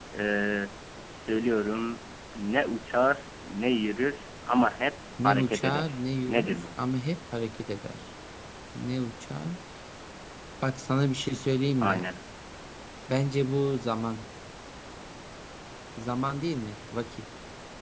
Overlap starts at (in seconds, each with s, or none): 5.2 s